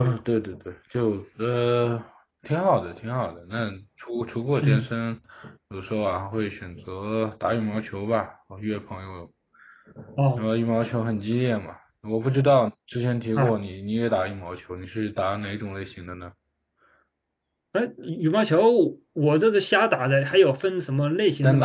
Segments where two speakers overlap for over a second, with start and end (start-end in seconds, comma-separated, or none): none